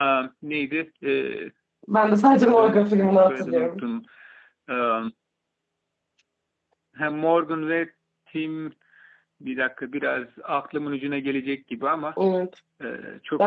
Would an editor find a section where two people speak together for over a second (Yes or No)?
Yes